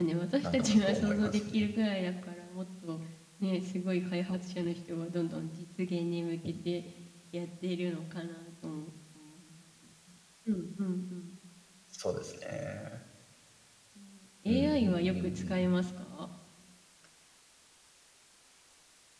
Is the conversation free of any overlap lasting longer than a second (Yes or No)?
No